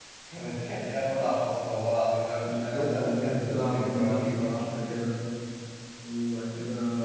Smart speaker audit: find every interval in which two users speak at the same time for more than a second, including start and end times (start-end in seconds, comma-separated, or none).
2.4-4.4